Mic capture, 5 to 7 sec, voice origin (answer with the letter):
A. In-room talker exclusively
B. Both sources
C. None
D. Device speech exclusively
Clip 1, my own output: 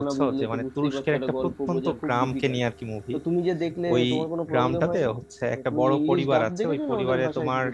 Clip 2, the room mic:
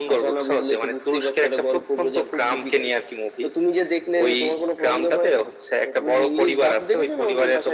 D